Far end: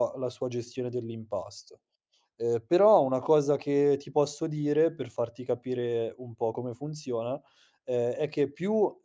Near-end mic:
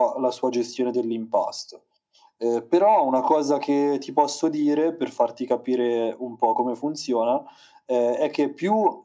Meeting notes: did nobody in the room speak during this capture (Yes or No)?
Yes